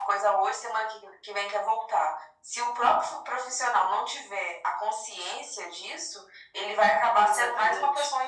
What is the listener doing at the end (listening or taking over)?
listening